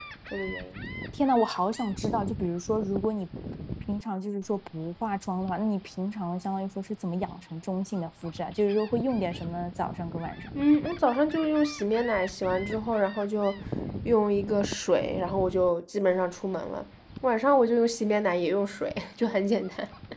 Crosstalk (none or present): none